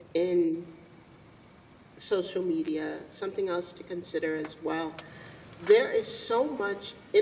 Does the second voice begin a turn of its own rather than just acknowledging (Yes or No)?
No